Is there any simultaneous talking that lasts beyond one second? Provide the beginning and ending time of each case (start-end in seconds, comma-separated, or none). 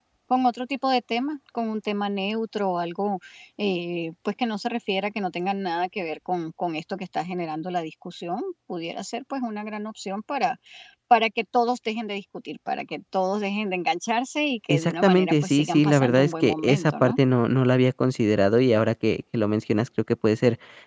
14.7-17.1